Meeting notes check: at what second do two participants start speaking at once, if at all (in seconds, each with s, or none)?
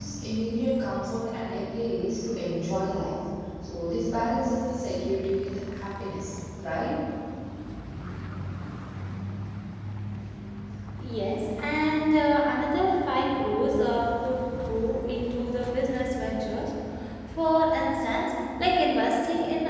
none